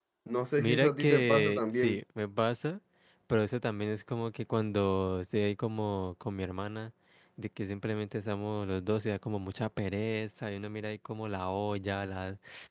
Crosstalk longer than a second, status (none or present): present